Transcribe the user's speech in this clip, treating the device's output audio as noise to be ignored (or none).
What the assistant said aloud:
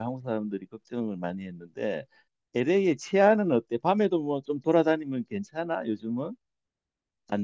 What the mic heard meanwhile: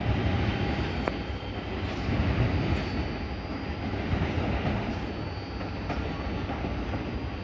none